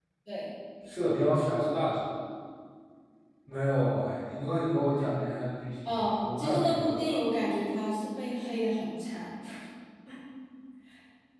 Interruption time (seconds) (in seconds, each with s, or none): 5.8 s